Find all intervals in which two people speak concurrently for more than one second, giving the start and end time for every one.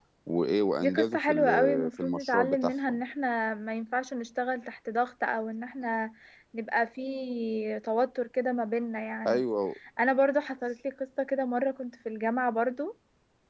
0.8-3.0

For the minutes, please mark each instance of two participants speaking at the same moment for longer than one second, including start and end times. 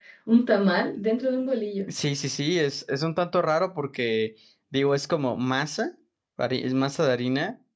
none

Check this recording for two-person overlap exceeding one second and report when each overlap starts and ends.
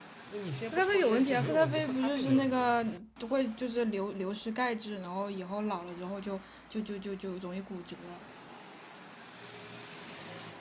0.7-2.8

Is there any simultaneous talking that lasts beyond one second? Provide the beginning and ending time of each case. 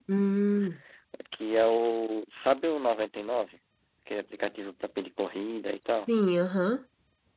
none

